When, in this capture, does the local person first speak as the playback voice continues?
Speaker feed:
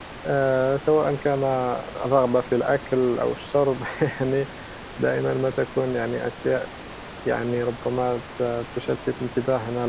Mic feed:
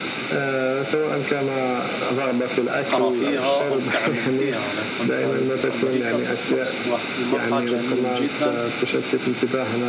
2.8 s

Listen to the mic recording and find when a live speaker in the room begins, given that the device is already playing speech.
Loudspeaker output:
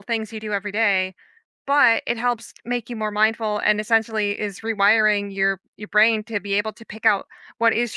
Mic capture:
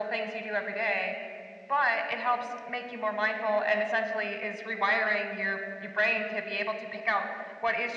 none

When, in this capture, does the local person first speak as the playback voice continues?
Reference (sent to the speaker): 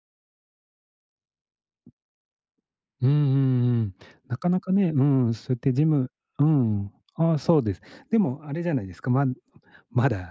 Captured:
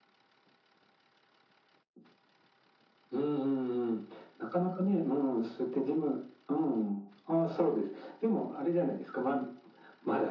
none

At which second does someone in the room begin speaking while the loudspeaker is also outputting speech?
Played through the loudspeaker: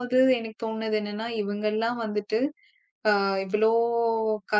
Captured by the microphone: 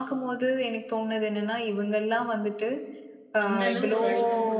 3.5 s

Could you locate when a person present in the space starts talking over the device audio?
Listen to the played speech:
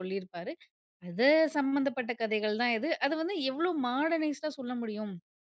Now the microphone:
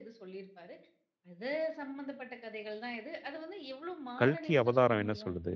4.2 s

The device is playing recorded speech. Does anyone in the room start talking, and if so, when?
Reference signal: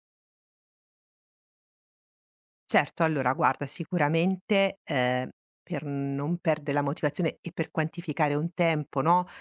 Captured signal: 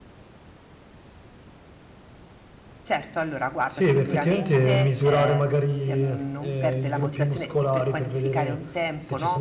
3.7 s

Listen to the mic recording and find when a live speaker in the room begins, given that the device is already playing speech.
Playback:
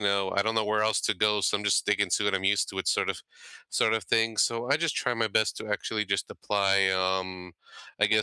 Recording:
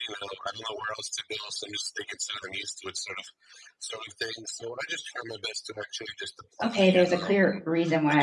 6.6 s

